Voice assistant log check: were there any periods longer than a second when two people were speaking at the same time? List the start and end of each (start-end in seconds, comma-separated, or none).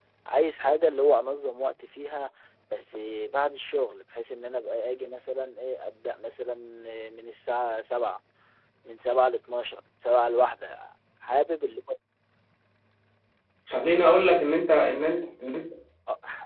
none